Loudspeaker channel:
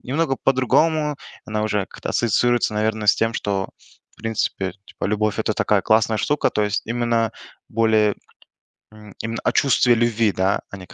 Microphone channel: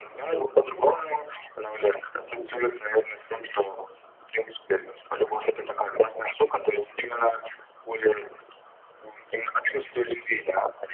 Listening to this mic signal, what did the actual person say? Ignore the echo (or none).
none